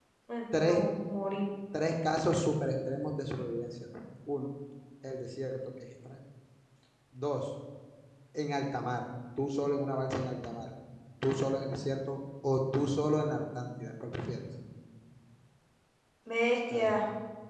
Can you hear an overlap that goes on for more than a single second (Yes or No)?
No